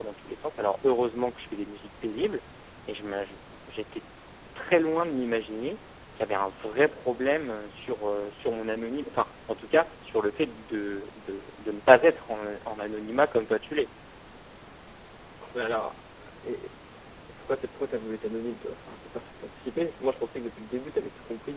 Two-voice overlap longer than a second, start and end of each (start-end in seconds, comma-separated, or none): none